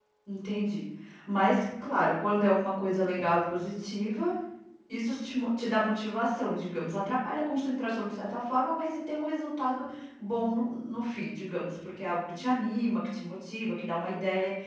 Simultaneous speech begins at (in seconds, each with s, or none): none